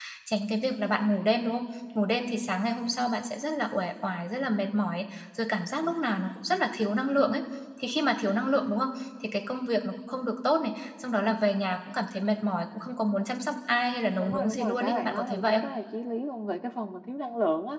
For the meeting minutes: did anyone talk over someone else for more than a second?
Yes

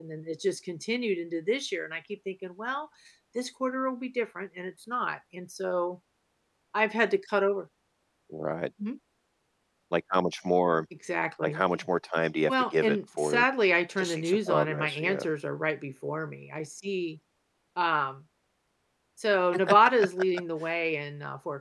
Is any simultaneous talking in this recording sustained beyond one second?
Yes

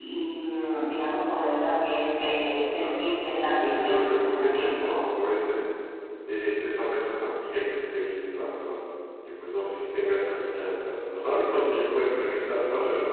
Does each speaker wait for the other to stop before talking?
No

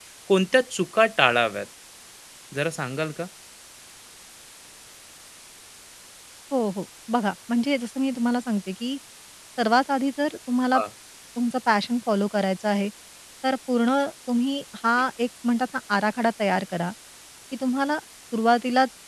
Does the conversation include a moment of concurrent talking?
No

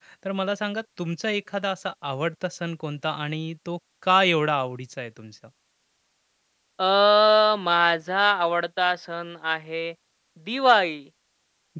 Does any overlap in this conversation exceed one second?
No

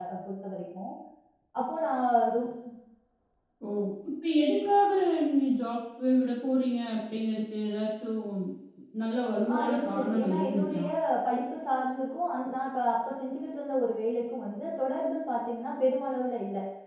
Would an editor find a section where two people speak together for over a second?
Yes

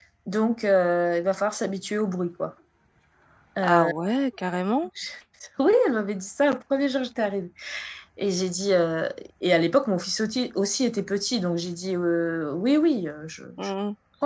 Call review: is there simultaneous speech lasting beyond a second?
No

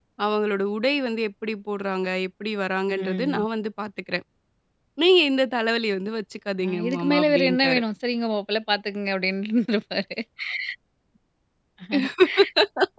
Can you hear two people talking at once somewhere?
Yes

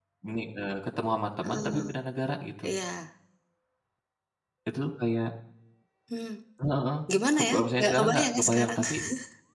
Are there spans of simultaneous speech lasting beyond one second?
Yes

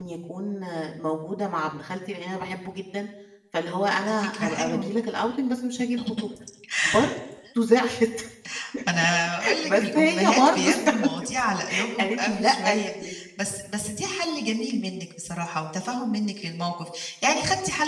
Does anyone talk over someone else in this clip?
Yes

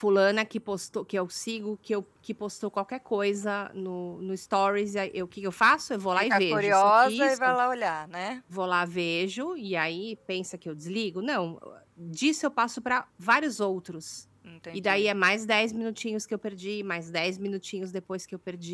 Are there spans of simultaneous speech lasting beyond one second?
Yes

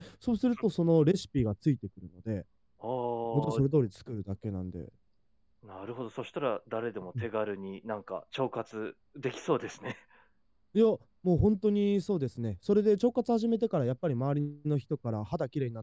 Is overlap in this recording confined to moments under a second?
Yes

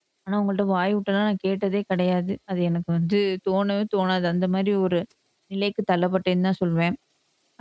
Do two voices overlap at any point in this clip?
No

